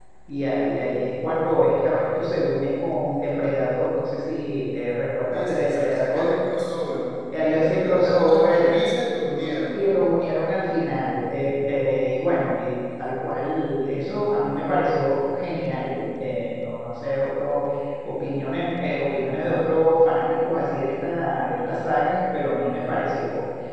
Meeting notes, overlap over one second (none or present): present